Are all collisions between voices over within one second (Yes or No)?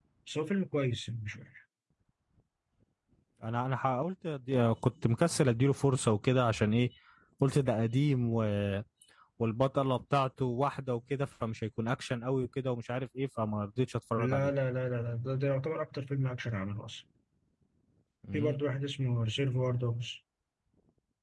Yes